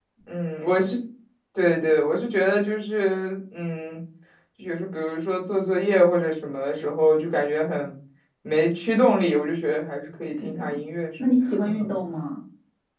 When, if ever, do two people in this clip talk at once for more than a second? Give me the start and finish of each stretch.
none

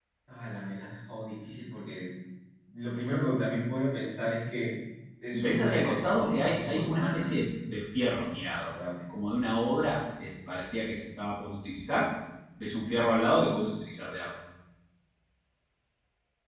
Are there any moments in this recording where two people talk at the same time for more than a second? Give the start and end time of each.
5.3-7.3

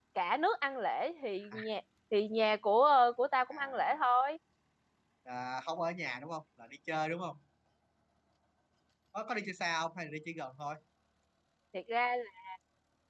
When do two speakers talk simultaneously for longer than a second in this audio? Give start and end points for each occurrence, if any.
none

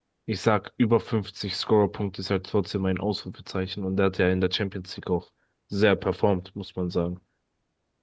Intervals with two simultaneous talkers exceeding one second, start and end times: none

